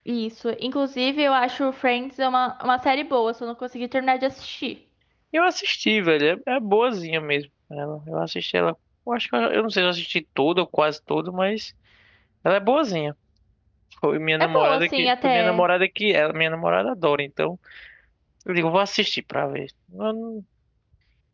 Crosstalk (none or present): present